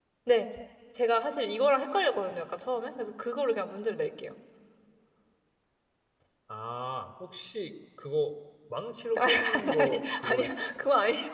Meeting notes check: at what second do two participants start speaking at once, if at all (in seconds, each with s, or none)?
9.2 s